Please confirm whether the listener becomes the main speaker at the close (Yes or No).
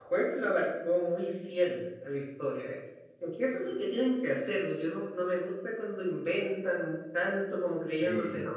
No